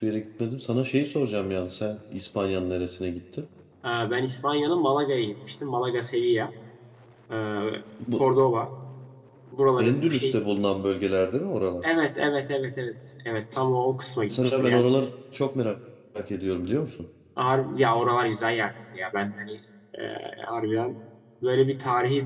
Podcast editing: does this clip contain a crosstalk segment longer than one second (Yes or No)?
No